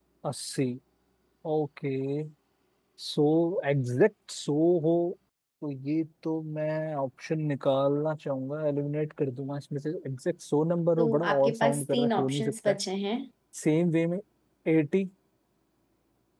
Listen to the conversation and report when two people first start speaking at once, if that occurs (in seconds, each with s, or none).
11.0 s